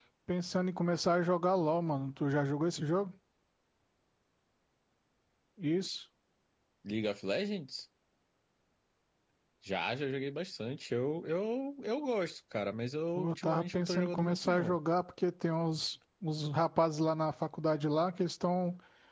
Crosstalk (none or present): present